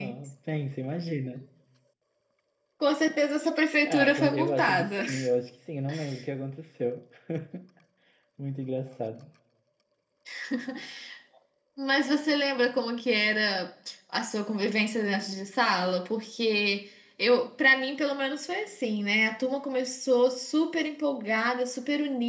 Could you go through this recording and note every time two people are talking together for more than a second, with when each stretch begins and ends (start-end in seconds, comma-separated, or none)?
3.8-5.0